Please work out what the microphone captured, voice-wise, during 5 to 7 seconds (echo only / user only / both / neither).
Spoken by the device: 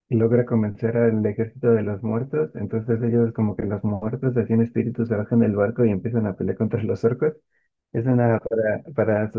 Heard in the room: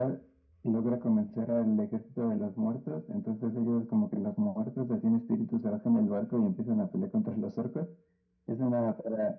echo only